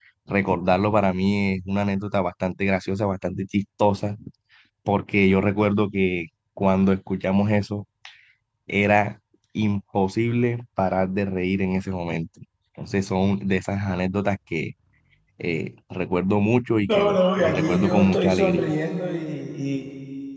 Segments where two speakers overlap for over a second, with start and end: 16.9-18.7

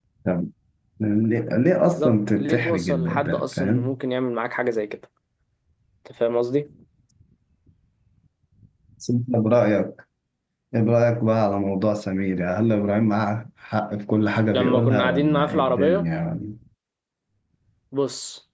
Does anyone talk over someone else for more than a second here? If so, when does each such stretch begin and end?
1.9-4.0, 14.5-16.0

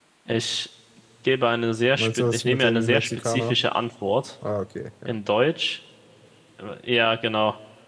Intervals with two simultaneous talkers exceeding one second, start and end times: 2.0-3.5

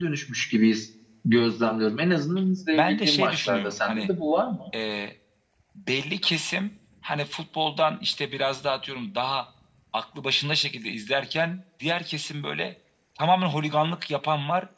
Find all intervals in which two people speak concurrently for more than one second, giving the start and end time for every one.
2.8-4.1

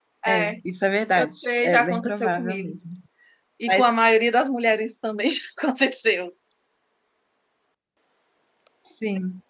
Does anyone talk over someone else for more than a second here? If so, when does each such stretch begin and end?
1.1-2.8

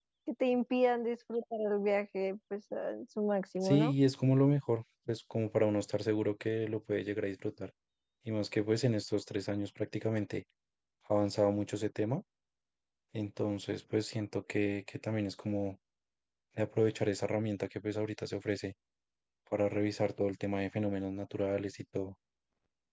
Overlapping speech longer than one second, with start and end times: none

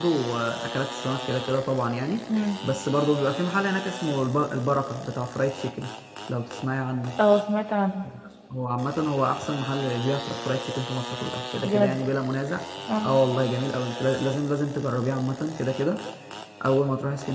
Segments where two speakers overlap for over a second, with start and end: none

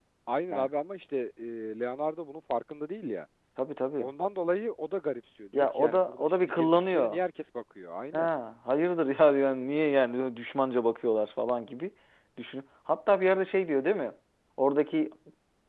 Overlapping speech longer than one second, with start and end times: 5.5-7.2

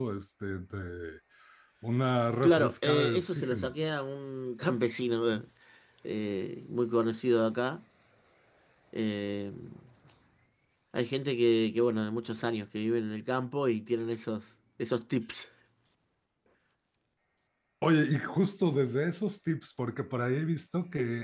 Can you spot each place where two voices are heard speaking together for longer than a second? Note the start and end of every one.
2.4-3.7

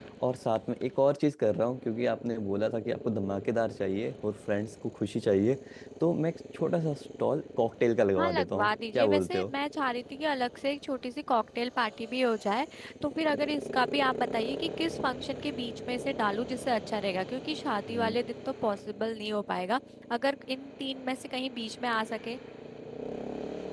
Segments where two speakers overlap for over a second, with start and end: 8.2-9.5

